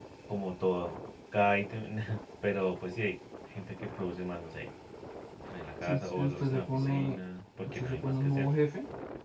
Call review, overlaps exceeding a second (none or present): present